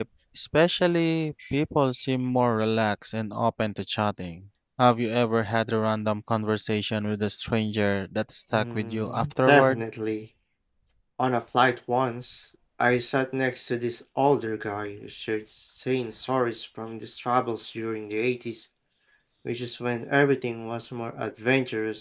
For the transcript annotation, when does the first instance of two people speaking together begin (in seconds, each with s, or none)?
8.5 s